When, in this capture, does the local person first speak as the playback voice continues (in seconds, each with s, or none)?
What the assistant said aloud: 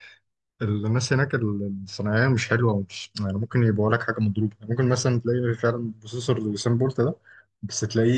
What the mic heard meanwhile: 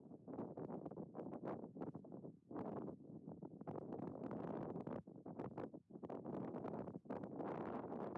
none